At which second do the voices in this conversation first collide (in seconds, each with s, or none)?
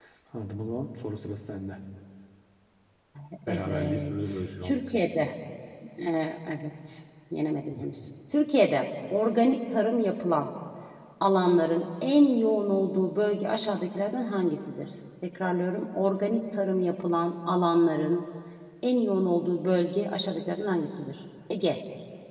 3.5 s